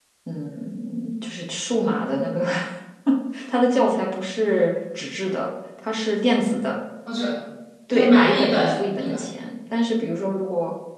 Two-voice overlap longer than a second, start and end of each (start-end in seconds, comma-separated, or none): 7.9-9.2